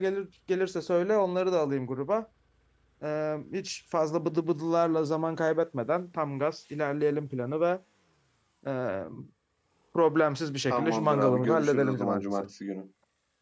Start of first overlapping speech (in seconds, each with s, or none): 10.7 s